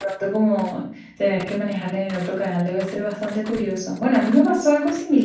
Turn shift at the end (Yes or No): No